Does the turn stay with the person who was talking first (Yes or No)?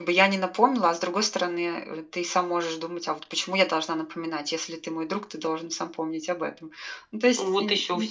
No